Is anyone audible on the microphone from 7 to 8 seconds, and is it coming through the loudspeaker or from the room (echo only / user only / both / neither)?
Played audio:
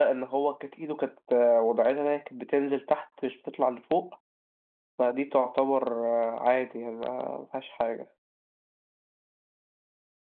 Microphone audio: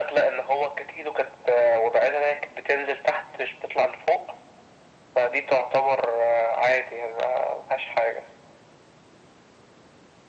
echo only